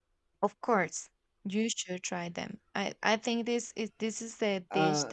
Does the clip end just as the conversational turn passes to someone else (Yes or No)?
No